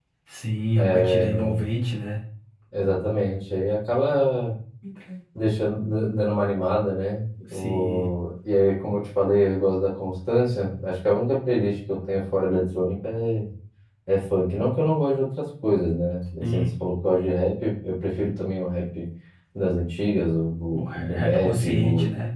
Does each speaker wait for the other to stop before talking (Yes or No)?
No